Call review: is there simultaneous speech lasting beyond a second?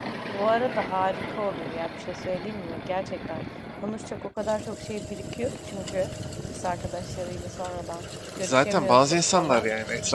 Yes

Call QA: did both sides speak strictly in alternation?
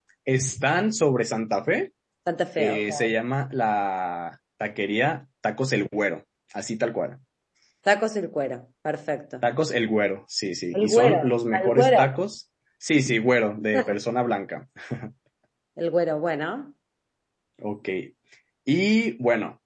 No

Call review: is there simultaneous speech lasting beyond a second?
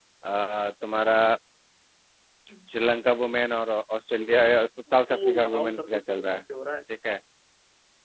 Yes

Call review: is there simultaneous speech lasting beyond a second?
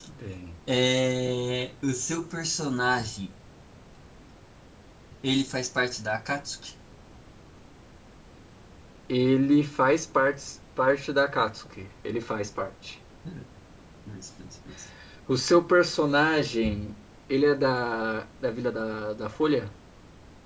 No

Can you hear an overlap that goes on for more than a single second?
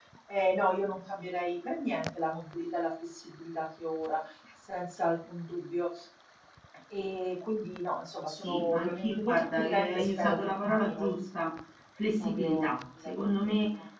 Yes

